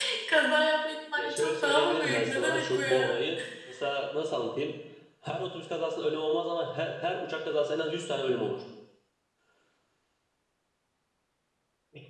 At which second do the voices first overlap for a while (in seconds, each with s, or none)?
1.2 s